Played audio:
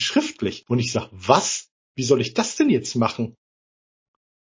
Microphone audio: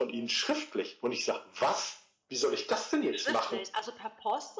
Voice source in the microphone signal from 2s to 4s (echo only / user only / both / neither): both